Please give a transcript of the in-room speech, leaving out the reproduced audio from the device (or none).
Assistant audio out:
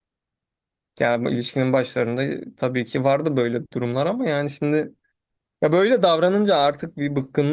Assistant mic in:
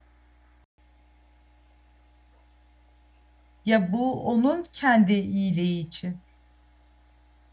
Ya bu onun kendi iyiliği için.